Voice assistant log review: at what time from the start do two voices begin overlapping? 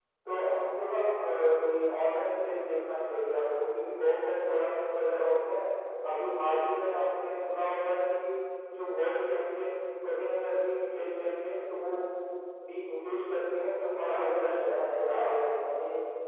14.0 s

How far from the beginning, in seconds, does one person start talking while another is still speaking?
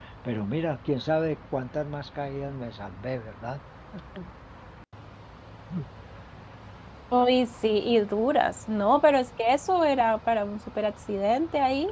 none

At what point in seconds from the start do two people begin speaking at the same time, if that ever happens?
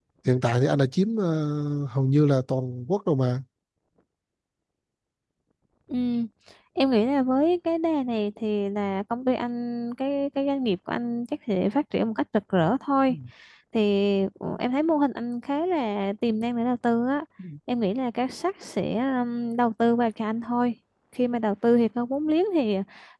none

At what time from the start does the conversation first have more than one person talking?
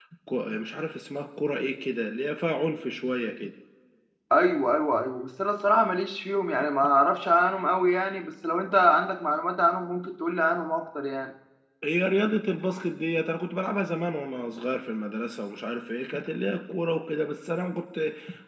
none

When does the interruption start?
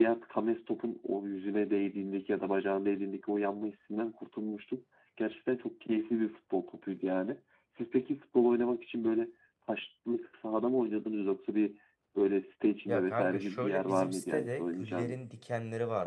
12.9 s

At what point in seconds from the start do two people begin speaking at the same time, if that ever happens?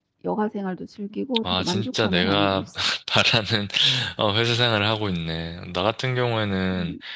1.4 s

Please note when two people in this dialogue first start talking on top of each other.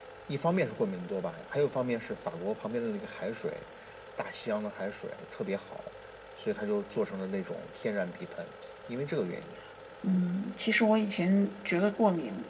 none

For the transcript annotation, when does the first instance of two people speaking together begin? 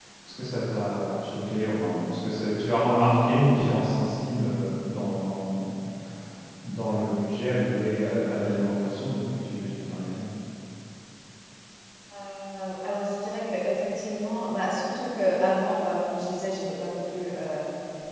none

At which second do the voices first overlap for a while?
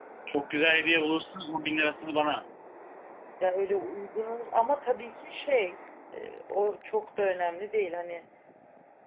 none

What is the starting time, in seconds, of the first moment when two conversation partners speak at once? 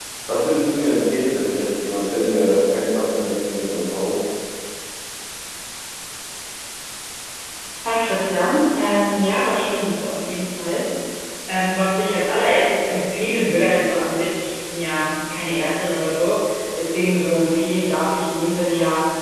none

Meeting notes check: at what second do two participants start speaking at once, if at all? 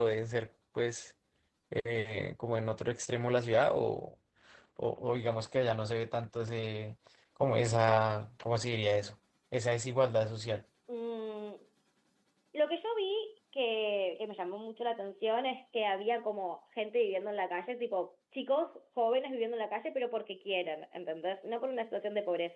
none

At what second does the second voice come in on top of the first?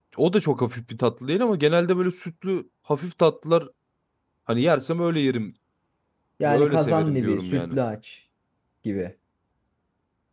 6.4 s

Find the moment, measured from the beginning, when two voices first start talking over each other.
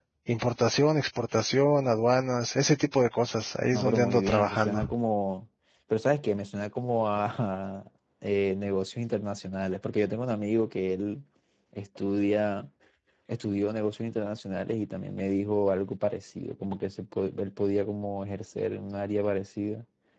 3.7 s

